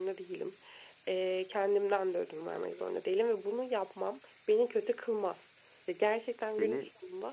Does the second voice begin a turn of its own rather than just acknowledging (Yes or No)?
No